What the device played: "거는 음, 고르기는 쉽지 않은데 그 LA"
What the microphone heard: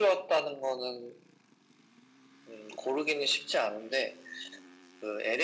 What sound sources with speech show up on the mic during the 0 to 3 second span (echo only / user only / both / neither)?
echo only